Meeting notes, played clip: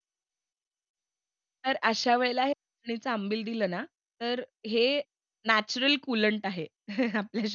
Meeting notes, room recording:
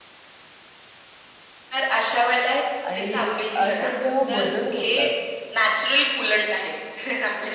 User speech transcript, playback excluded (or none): आणि अ, असे जेव्हा बदल होतात,